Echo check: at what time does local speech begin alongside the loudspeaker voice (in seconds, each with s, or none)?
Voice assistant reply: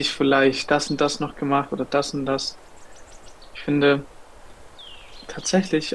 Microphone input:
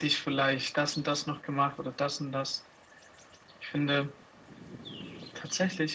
none